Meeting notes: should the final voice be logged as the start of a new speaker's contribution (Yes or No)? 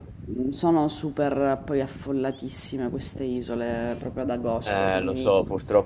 Yes